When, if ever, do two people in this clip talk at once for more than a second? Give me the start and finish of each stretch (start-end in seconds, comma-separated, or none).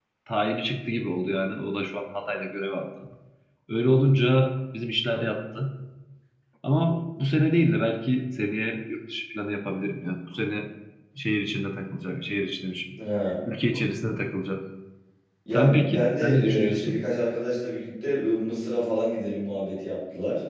15.5-17.0